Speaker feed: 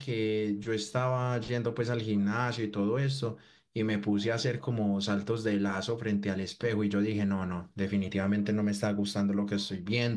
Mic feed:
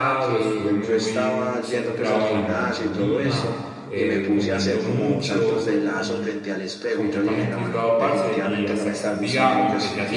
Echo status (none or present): present